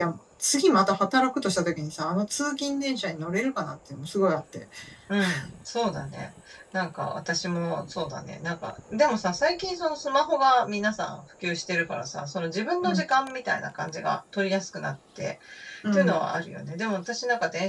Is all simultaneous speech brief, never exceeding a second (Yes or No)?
Yes